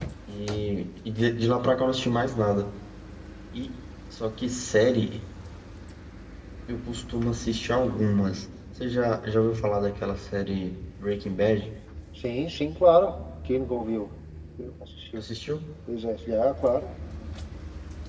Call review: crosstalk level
none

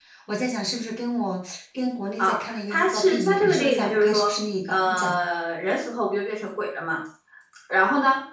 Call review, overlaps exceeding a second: present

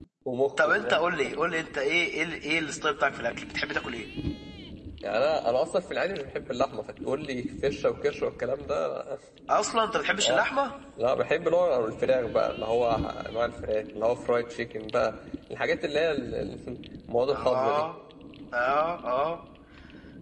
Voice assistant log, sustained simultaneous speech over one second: none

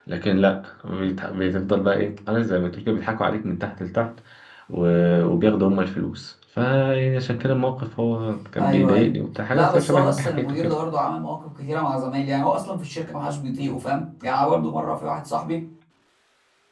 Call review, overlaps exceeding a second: present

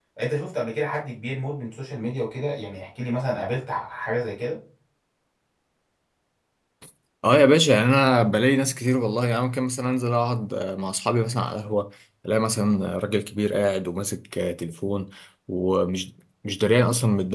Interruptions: none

